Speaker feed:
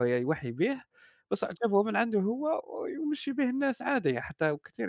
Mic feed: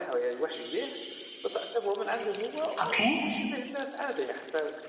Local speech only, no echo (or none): أوكي،